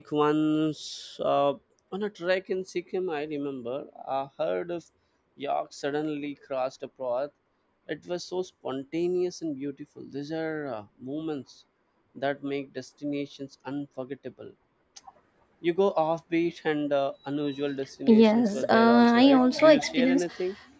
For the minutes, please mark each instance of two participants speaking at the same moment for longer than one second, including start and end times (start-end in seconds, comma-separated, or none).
18.1-20.3